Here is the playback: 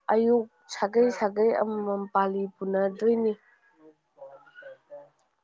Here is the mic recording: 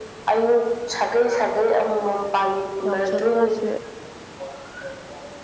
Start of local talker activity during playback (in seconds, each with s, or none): 2.8 s